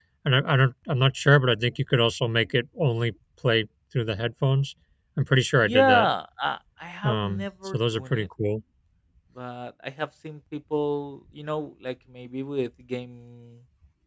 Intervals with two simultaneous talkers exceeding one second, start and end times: 7.0-8.3

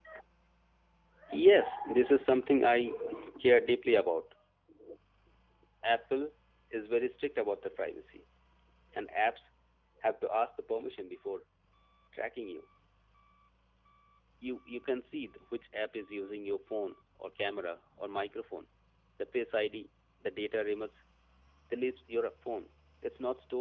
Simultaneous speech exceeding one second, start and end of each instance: none

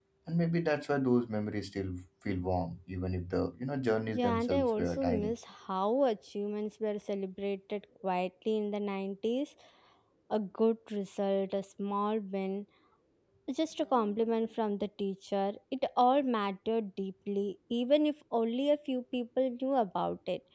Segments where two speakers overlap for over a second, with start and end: 4.1-5.3

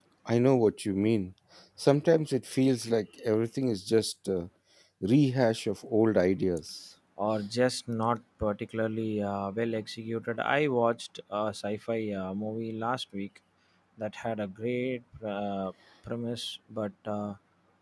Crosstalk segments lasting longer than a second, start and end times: none

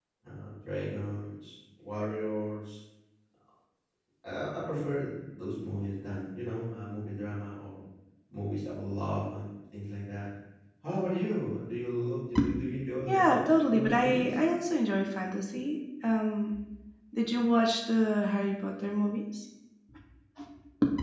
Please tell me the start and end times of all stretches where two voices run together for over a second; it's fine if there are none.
13.1-14.3

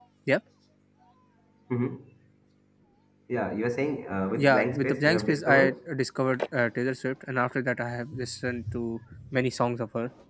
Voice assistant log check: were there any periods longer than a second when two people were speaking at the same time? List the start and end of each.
4.4-5.8

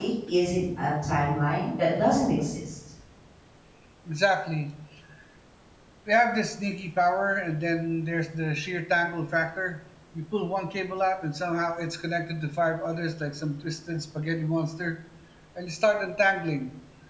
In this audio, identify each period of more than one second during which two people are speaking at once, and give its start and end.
none

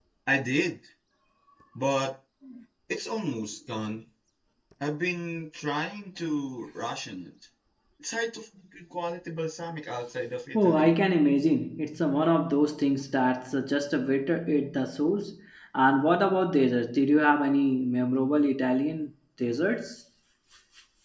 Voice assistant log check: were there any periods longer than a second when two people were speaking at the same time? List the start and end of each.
none

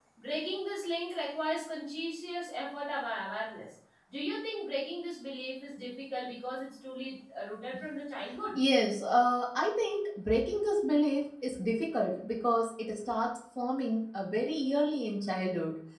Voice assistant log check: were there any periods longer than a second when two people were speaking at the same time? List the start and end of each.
none

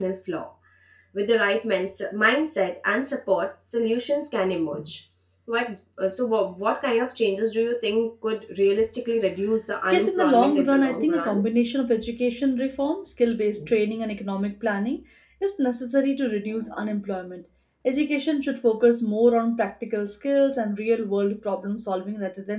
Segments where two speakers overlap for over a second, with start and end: 9.9-11.4

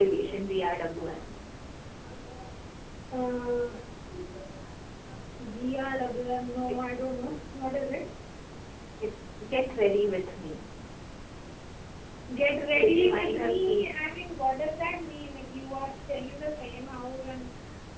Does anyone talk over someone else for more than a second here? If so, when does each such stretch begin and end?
12.7-13.9

